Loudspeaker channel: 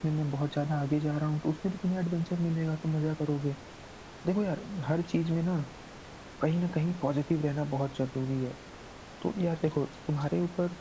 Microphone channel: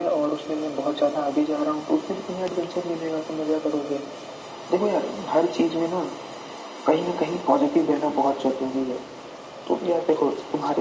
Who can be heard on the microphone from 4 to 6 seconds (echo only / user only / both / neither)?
echo only